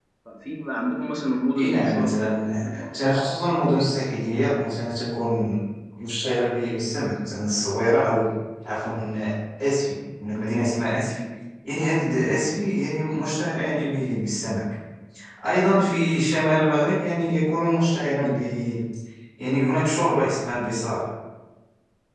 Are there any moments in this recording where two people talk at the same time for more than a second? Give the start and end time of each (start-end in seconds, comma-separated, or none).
1.6-3.1